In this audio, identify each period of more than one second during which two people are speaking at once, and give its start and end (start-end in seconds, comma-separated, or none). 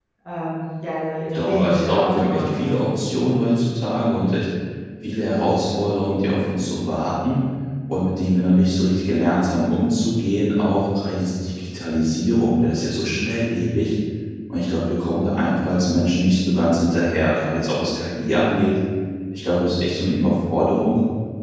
1.3-2.8